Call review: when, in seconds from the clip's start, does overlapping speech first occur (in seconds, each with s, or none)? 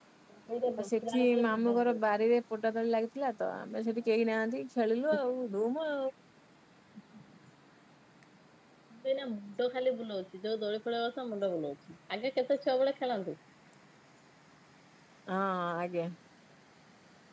0.8 s